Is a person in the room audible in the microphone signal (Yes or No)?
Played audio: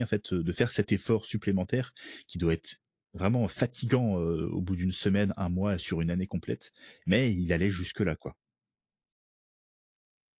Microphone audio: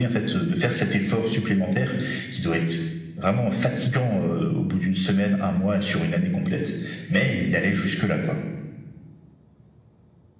No